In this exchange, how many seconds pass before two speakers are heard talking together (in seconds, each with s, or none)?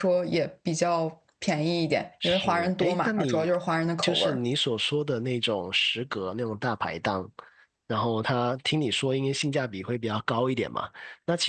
2.2 s